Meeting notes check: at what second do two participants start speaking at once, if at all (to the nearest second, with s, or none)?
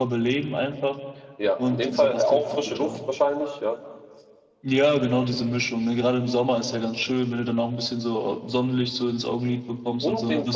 2 s